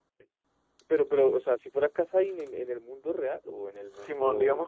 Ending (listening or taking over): taking over